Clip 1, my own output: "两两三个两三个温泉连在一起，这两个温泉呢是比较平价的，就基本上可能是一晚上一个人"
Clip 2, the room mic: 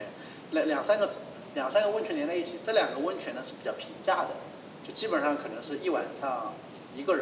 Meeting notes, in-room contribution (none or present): none